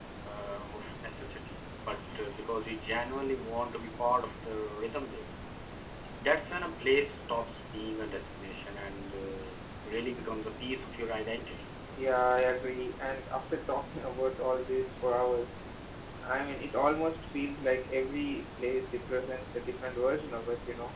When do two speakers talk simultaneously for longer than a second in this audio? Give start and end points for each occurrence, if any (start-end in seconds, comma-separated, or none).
none